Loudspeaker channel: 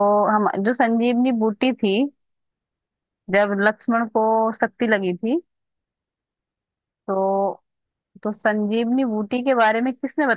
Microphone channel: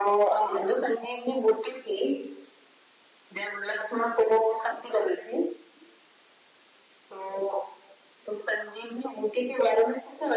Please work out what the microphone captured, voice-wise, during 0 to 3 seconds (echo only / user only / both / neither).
echo only